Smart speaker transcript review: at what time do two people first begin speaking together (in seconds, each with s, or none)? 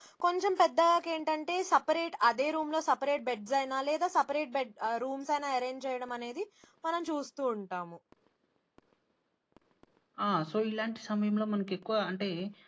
none